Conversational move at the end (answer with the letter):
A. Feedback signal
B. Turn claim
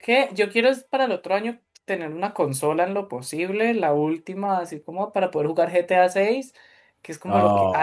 A